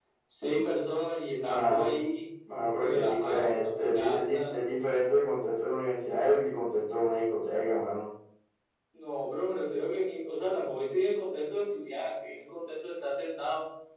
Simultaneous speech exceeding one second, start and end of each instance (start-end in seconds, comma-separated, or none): 2.8-4.5